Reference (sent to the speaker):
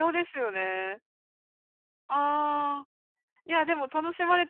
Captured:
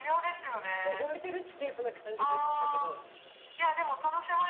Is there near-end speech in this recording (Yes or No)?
Yes